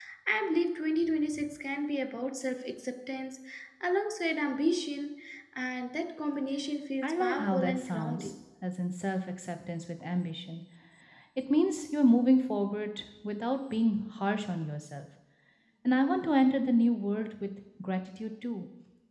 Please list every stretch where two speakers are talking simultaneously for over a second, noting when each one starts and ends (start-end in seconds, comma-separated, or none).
7.0-8.3